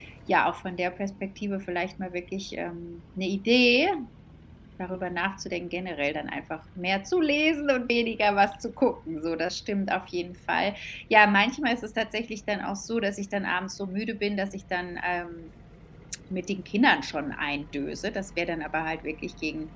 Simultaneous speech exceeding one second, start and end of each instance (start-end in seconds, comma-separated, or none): none